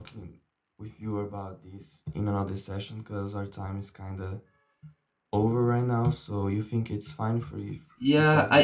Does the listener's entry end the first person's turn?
Yes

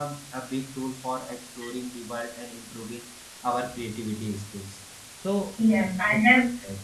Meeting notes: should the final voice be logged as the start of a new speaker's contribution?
Yes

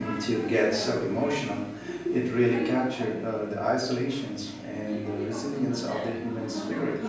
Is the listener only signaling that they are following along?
No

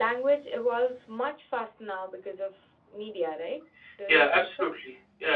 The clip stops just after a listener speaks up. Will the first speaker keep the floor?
No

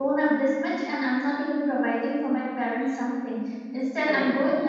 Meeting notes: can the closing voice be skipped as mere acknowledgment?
Yes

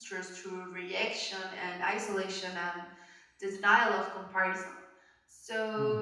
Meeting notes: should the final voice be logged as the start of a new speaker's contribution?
No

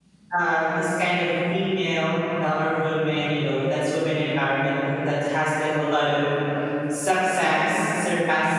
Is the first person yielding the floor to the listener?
No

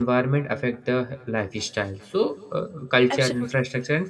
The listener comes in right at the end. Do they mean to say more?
No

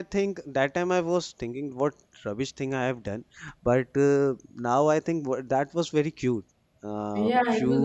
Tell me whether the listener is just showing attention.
No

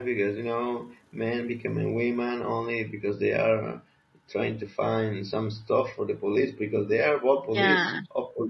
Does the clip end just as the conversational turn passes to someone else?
No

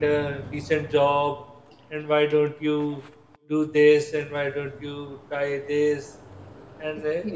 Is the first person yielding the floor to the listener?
Yes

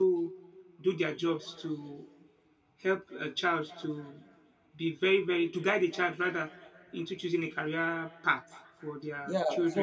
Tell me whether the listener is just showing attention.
No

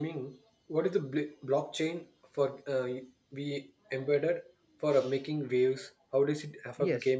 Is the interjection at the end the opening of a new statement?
Yes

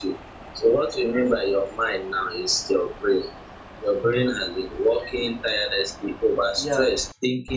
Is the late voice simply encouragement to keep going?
Yes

